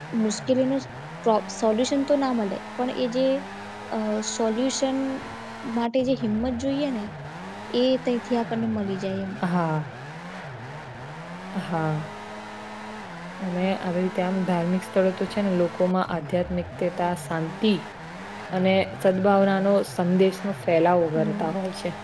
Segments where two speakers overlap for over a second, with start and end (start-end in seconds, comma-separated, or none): none